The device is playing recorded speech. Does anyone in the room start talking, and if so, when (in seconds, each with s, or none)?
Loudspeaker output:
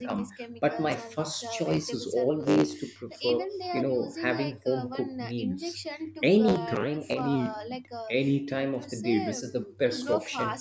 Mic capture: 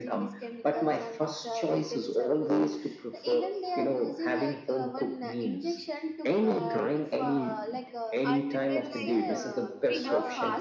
8.2 s